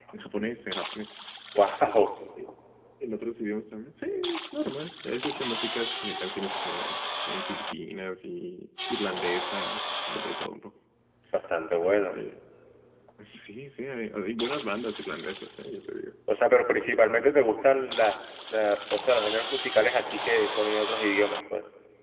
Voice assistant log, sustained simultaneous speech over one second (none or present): none